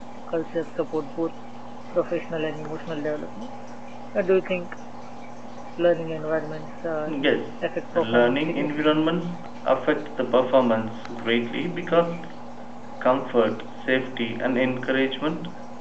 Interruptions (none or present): present